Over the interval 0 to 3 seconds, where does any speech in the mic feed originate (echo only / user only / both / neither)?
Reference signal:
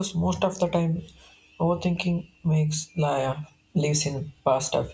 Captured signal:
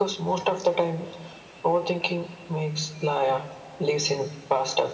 echo only